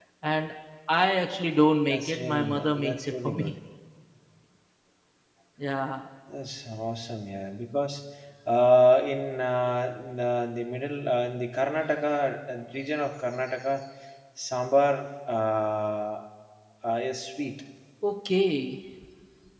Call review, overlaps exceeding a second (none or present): present